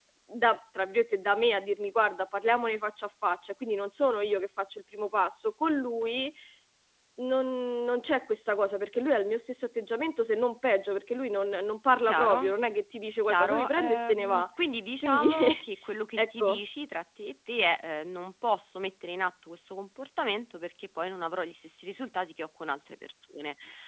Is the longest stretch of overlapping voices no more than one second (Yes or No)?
No